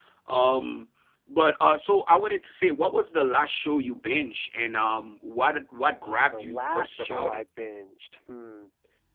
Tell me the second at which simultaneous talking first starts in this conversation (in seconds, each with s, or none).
6.0 s